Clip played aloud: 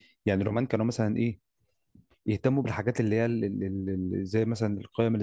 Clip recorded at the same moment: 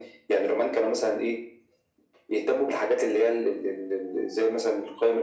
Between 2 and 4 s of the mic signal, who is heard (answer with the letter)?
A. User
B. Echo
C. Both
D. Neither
B